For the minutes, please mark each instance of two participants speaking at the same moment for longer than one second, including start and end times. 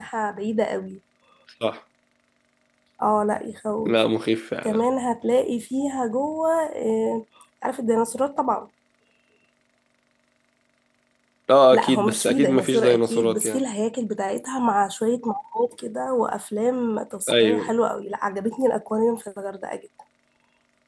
11.7-13.6

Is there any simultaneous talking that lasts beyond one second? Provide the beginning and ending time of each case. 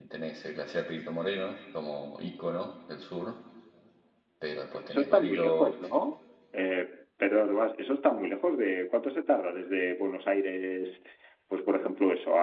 4.7-6.0

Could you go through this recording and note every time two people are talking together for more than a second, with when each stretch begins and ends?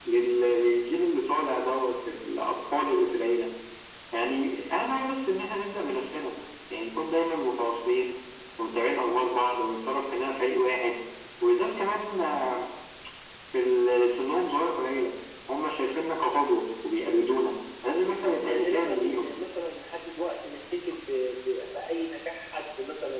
18.0-19.3

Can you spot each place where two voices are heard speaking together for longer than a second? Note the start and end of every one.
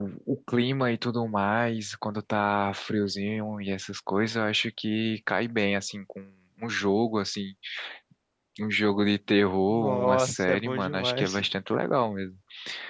9.7-11.4

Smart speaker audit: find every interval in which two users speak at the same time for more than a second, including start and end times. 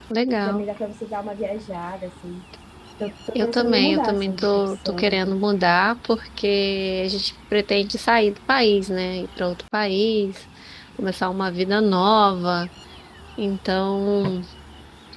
3.4-5.3

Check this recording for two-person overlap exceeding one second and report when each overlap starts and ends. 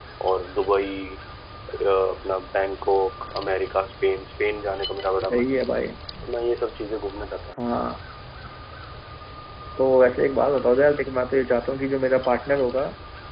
none

